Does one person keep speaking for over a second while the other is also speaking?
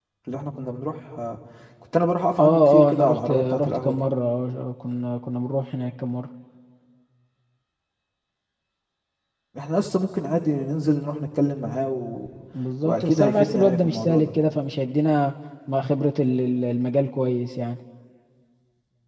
Yes, from 2.4 s

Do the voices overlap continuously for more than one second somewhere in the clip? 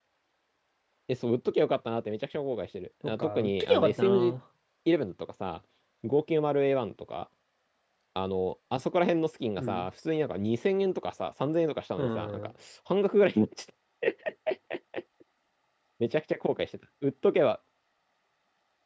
Yes, from 3.1 s

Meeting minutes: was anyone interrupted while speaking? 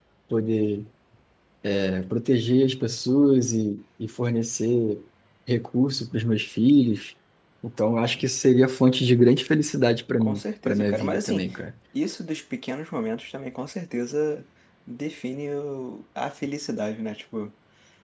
Yes, from 10.2 s

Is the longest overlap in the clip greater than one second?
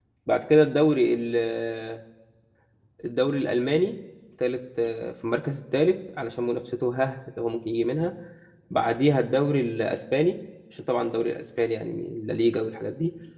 No

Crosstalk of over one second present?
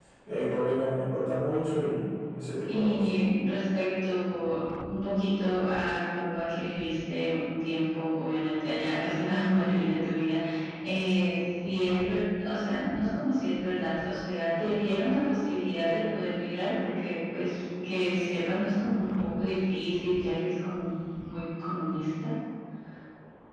No

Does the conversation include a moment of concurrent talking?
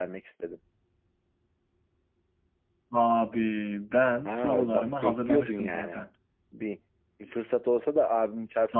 Yes, from 4.2 s

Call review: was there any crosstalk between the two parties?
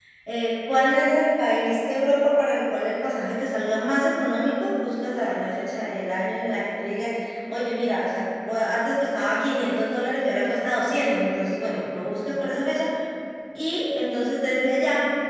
No

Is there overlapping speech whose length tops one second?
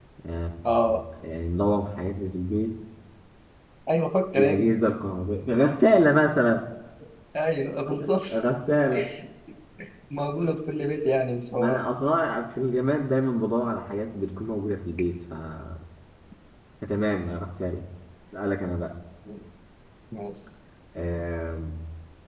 No

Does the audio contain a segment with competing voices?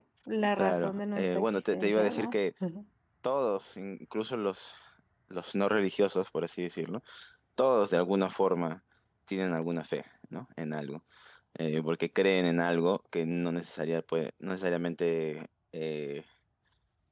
Yes, from 0.6 s

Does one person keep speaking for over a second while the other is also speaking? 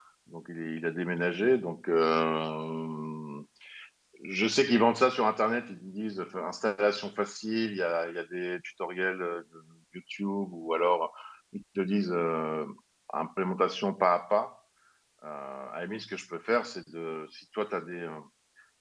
No

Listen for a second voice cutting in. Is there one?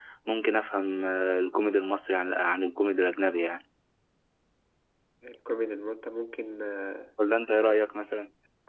No

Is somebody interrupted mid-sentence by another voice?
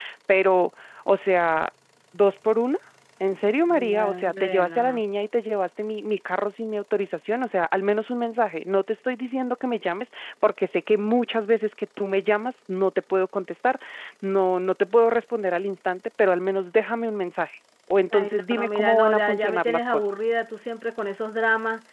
Yes, from 3.7 s

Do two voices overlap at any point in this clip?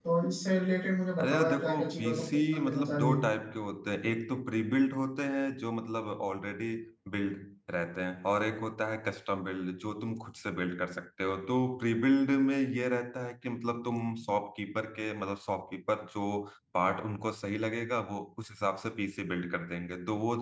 Yes, from 1.2 s

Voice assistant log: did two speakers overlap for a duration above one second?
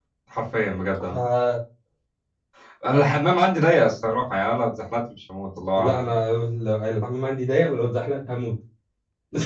No

